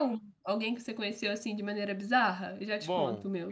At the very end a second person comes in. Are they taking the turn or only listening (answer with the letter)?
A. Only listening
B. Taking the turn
B